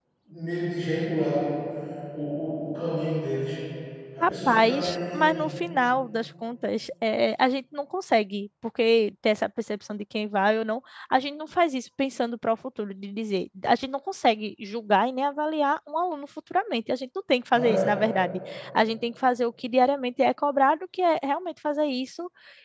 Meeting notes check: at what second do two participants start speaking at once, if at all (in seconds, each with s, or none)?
4.2 s